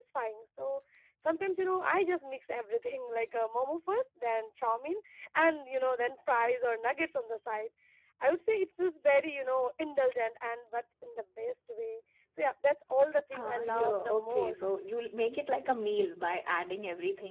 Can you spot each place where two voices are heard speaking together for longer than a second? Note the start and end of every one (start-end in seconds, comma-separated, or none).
13.3-14.6